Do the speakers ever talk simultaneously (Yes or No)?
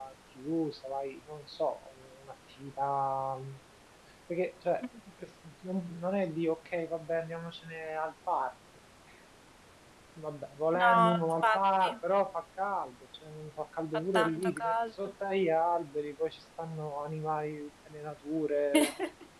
Yes